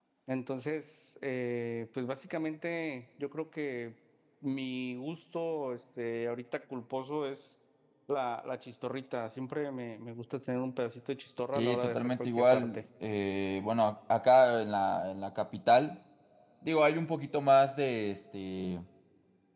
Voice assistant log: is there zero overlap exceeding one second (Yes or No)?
No